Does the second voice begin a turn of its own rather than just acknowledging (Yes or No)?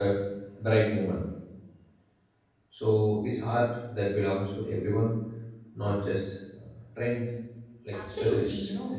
Yes